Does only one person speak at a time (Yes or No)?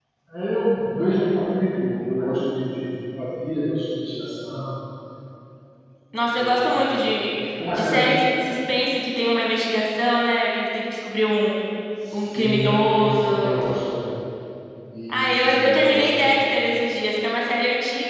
No